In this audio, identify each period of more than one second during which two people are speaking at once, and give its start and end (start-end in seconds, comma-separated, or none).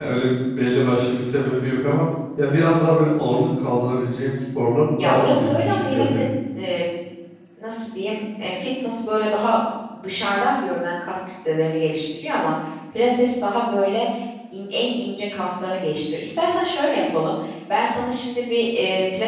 5.0-6.3